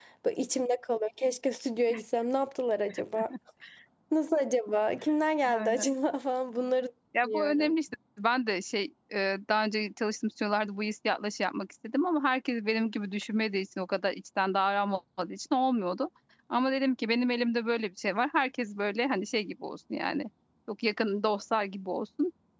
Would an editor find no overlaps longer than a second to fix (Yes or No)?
Yes